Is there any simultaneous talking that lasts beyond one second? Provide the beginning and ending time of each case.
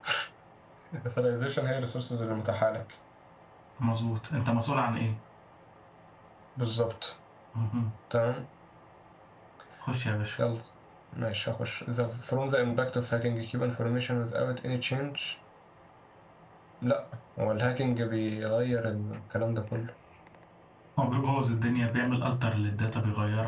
none

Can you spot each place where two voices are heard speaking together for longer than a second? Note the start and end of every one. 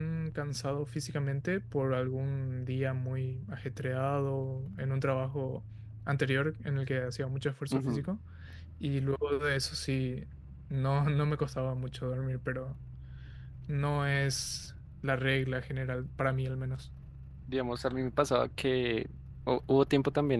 none

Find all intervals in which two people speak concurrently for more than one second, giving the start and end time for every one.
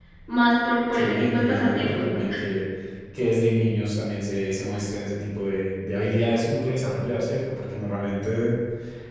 0.9-2.2

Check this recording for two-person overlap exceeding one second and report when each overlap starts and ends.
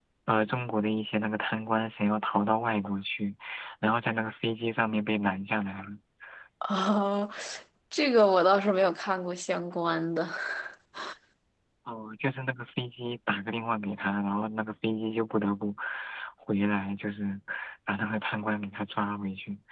none

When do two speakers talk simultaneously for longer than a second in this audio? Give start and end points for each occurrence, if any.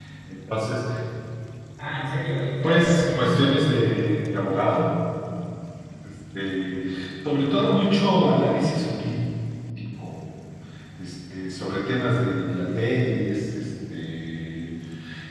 2.6-3.9

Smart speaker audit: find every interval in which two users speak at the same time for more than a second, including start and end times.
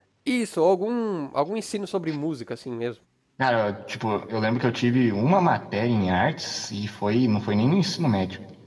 none

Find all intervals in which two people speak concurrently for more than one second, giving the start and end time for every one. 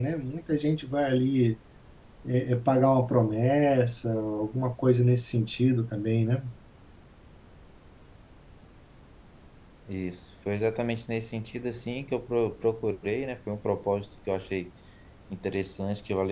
none

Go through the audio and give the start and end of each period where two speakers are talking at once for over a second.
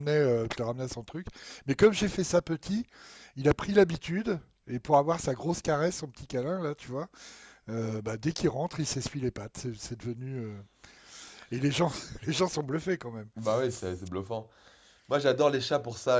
none

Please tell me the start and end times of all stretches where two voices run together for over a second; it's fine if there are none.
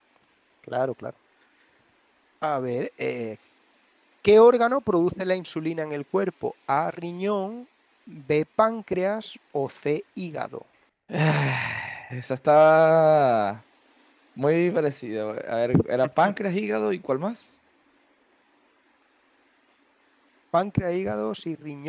none

